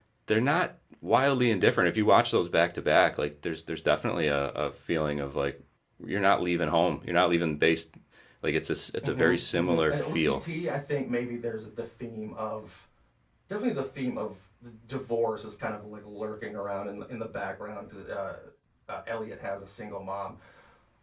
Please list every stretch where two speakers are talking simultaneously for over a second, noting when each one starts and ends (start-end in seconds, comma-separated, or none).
9.0-10.4